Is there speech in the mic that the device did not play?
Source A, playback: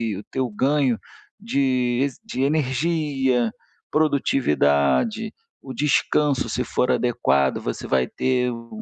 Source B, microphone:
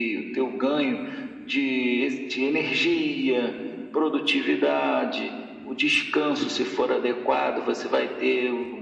No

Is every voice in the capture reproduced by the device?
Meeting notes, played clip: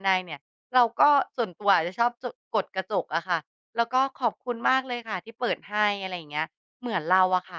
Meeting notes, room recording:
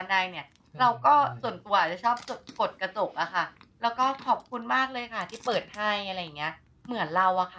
No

